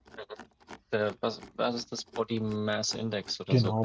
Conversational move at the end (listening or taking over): taking over